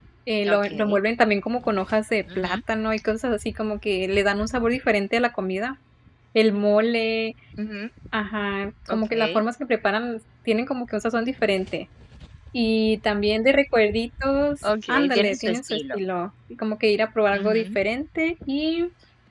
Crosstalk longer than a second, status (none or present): present